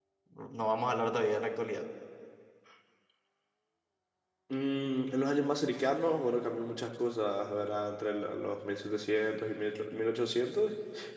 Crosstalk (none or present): none